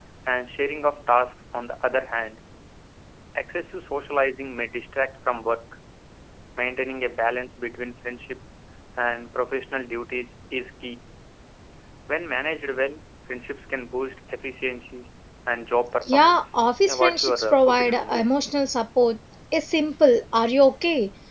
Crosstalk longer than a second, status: present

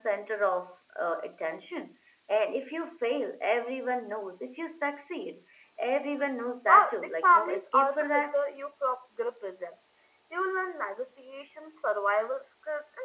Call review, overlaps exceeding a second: present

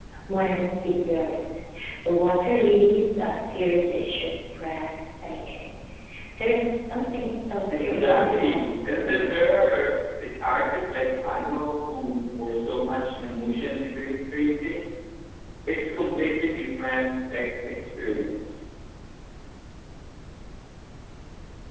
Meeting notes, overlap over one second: present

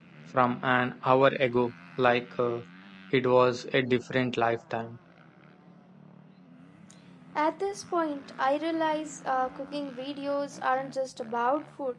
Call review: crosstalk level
none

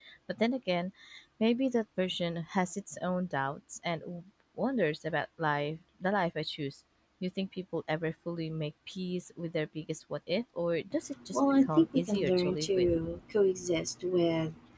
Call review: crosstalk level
present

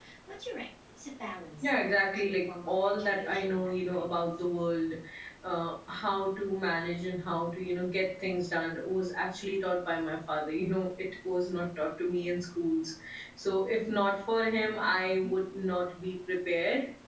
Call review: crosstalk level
present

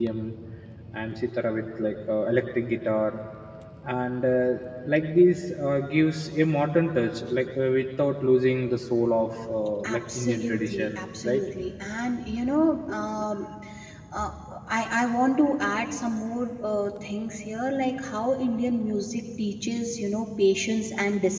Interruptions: present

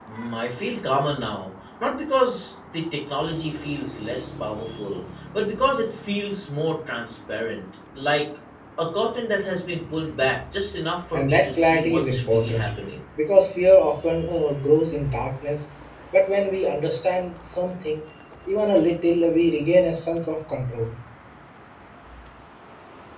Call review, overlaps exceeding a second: present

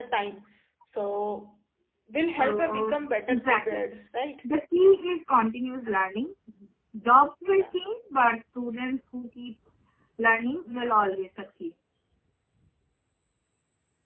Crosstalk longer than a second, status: present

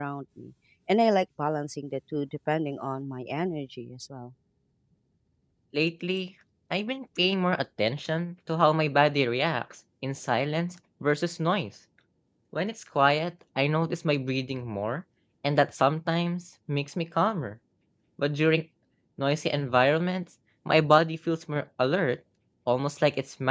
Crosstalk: none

